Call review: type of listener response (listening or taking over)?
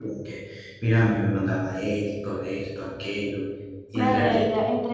taking over